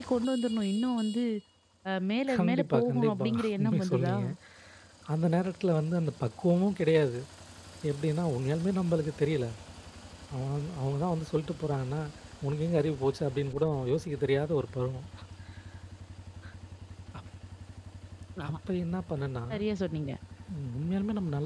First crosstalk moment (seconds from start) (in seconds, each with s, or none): 2.3 s